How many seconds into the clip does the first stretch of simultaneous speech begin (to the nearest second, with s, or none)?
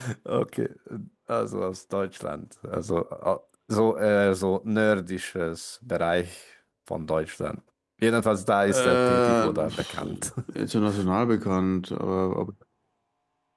9 s